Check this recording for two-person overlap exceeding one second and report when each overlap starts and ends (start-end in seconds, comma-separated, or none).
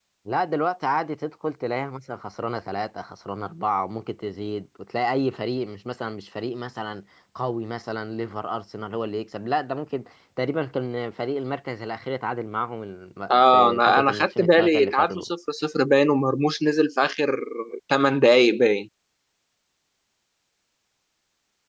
13.3-15.3